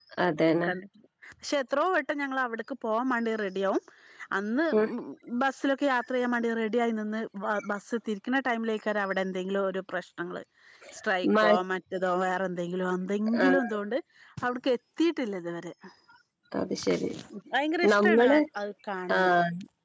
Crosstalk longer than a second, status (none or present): none